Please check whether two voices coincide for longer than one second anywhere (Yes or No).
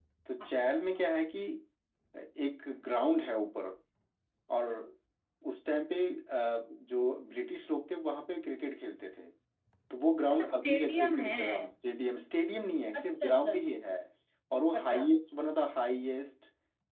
Yes